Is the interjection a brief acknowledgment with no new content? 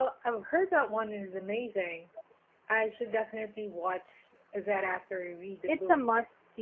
No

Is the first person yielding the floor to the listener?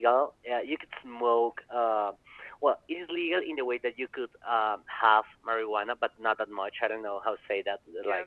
Yes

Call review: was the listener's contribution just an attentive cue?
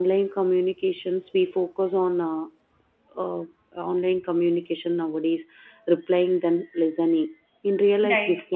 Yes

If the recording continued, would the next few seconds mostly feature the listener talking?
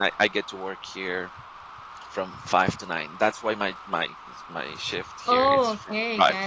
Yes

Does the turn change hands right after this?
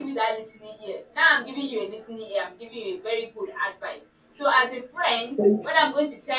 No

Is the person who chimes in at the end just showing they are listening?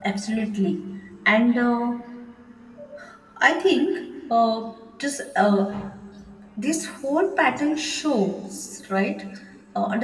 Yes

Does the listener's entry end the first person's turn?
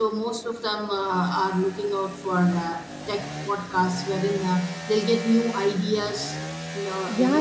Yes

